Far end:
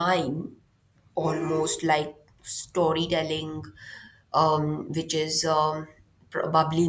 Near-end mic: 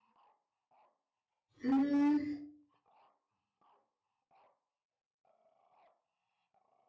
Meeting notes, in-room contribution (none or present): present